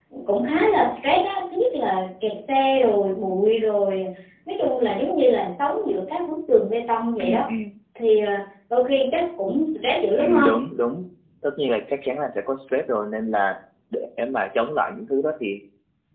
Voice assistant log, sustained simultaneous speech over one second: none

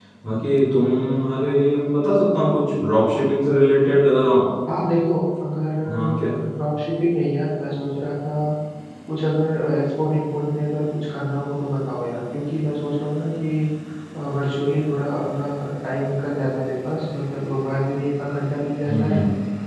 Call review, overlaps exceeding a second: none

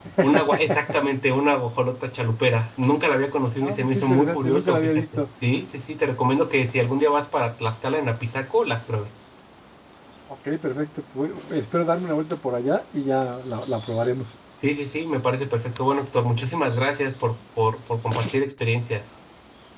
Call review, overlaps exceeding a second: present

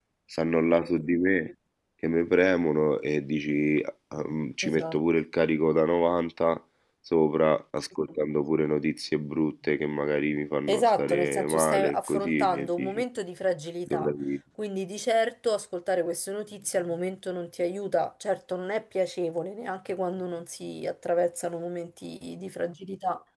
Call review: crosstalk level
present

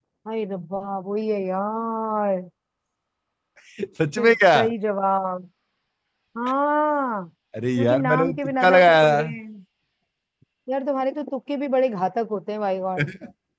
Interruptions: present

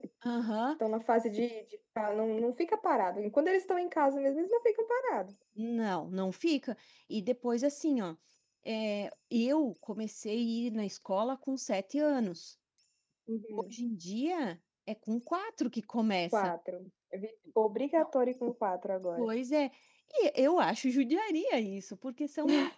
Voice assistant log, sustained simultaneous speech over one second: none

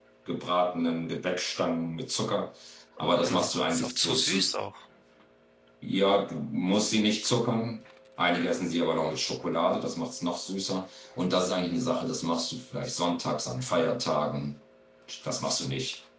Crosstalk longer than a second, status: present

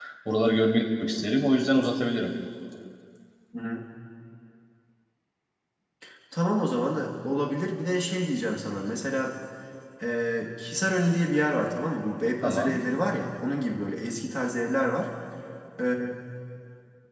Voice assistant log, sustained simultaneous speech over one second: none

